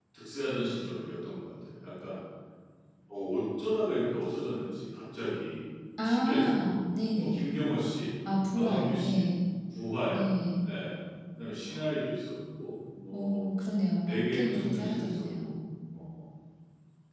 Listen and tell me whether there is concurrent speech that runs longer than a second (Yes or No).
Yes